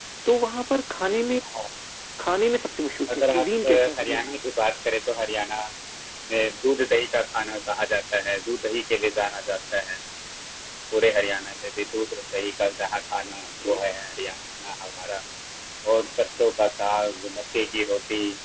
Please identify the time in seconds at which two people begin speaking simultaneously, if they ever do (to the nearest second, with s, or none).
3 s